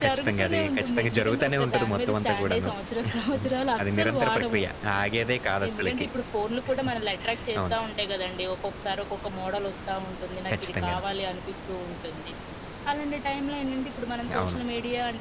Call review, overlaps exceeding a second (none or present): present